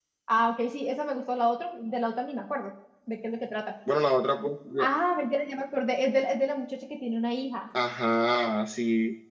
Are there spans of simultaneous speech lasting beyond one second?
No

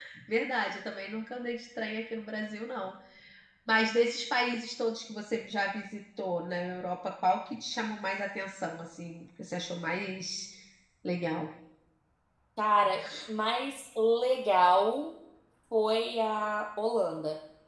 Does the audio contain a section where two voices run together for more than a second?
No

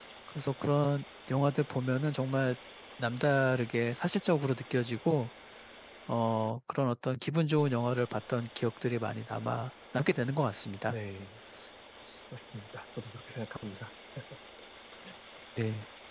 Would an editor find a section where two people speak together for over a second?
No

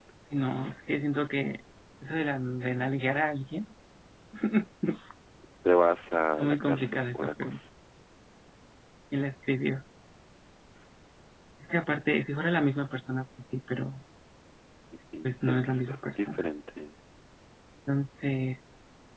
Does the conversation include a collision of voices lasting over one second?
Yes, from 6.4 s

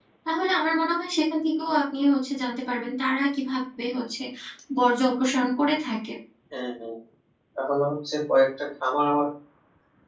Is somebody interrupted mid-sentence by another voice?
No

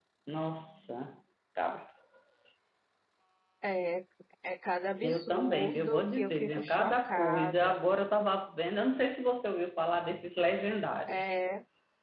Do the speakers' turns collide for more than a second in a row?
Yes, from 5.0 s

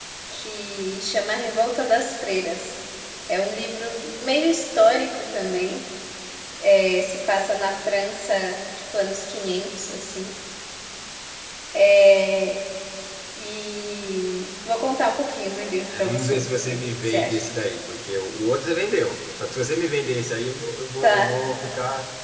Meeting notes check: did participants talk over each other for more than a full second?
Yes, from 16.0 s

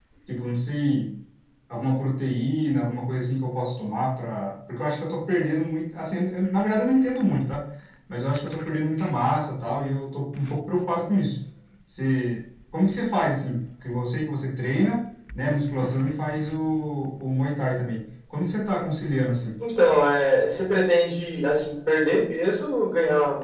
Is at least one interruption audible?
No

